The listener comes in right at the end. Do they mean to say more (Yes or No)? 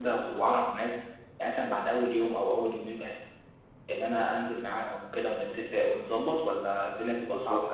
Yes